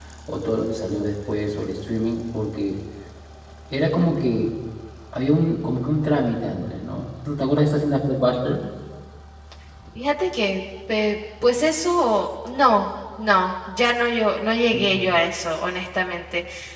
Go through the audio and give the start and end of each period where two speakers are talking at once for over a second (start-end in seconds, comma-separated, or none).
none